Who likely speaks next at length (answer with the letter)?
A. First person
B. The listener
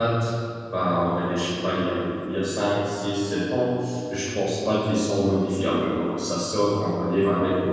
A